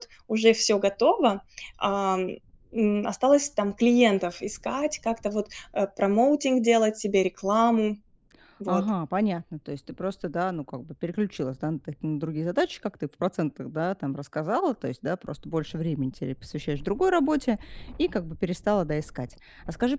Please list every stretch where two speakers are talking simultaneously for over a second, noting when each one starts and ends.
none

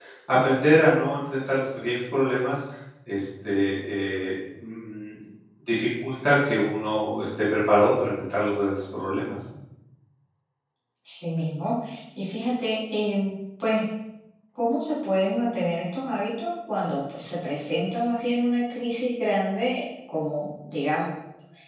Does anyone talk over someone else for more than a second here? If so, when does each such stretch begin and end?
none

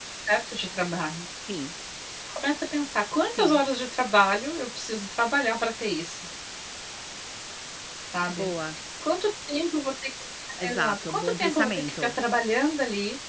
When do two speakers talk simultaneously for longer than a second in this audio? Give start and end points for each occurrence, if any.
10.6-12.2

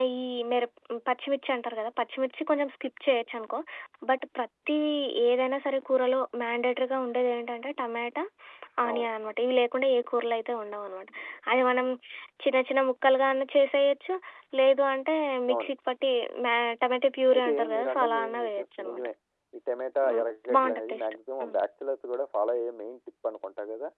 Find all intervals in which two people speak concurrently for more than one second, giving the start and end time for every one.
17.3-19.1, 20.1-21.6

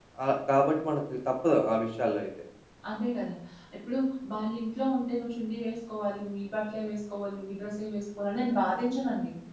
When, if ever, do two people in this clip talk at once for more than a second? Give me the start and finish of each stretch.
none

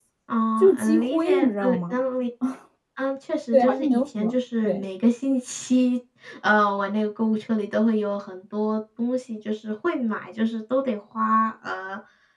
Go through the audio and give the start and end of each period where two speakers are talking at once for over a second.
0.6-2.0, 3.5-4.8

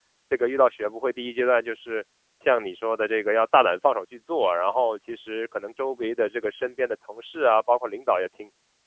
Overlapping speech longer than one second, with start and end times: none

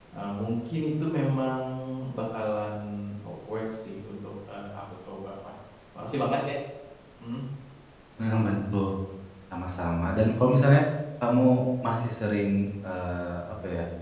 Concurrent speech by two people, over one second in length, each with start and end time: none

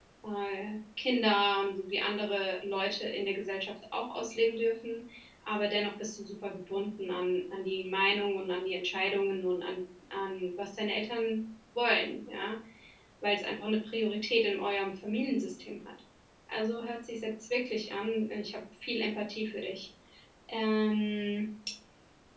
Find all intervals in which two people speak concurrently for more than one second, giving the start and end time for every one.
none

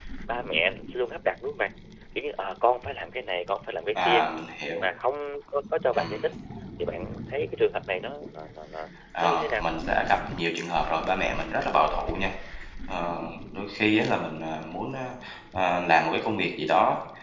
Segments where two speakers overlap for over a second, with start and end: none

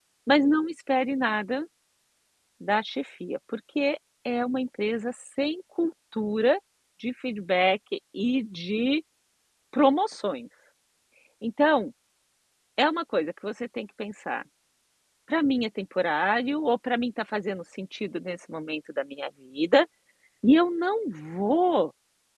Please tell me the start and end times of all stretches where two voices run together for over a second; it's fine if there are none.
none

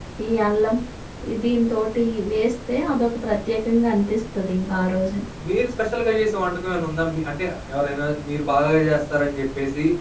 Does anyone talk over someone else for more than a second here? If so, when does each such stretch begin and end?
none

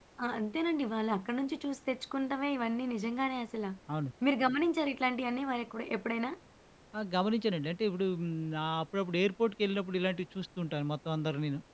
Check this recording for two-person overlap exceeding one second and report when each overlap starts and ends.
none

